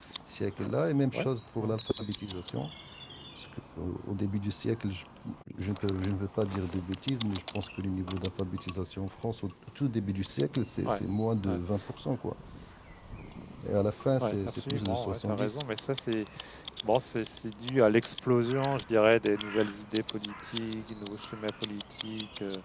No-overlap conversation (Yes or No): No